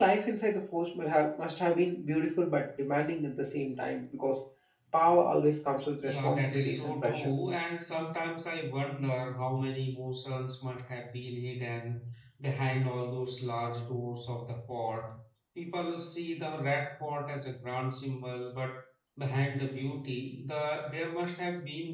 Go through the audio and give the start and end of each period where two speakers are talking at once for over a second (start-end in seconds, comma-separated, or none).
6.0-7.3